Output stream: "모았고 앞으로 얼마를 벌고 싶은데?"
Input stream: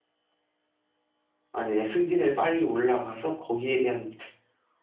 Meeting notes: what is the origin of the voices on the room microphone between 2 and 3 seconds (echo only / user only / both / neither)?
user only